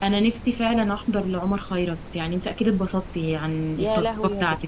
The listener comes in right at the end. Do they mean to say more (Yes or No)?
Yes